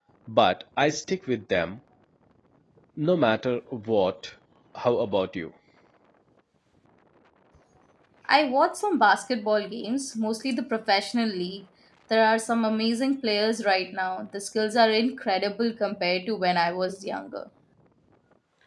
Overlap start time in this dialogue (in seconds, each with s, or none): none